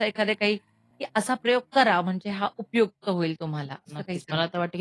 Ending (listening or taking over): taking over